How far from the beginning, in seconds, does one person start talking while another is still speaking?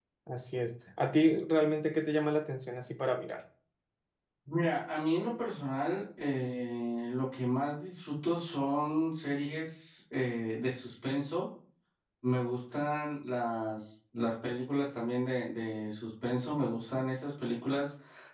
none

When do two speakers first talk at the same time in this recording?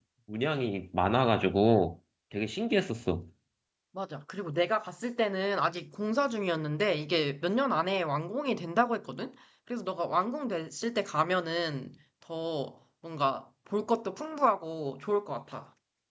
none

